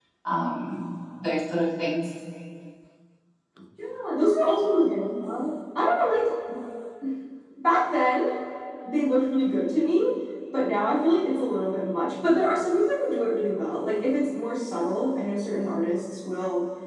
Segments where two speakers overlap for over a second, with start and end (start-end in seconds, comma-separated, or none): none